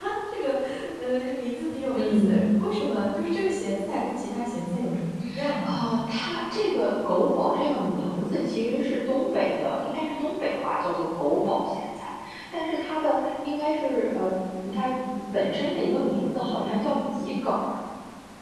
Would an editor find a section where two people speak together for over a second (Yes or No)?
No